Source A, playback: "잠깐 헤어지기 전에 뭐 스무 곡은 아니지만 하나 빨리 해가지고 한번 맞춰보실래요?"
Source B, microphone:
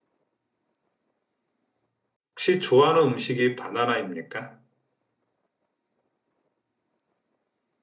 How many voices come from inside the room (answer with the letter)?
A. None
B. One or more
B